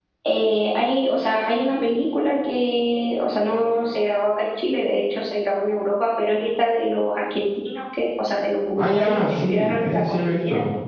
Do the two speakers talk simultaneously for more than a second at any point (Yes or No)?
Yes